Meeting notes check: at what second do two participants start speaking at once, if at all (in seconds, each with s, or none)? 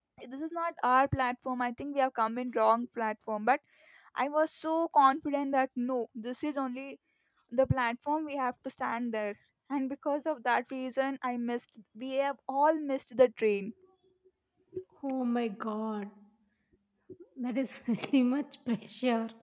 none